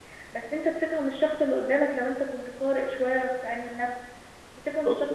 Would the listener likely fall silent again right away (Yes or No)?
Yes